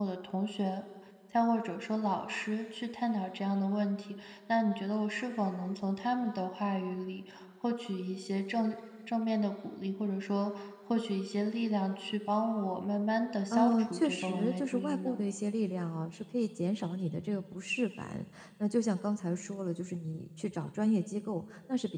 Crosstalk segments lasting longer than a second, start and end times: 13.5-15.2

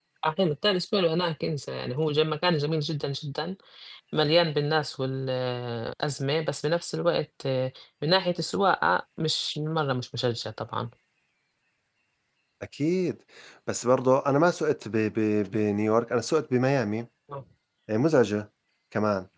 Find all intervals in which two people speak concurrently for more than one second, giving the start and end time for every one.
none

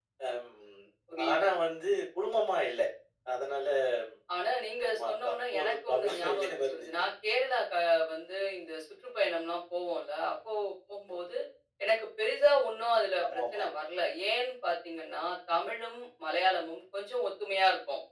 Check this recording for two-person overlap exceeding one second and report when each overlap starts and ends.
4.9-6.9

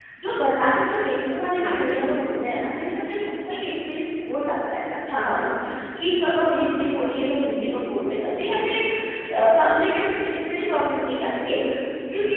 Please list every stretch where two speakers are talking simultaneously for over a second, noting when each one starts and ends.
none

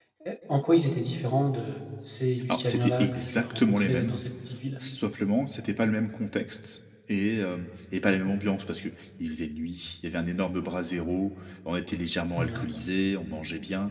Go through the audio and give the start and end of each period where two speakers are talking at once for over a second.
2.5-4.2

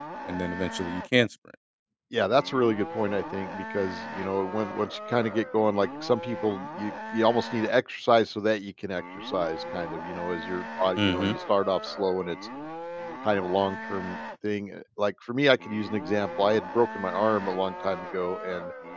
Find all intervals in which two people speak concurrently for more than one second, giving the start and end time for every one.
none

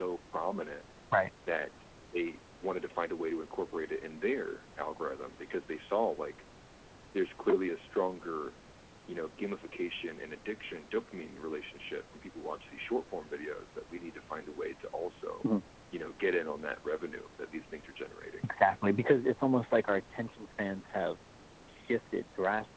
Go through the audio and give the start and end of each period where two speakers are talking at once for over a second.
none

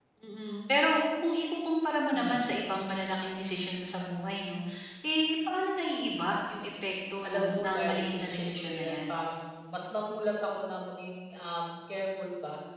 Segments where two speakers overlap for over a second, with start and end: 7.2-9.1

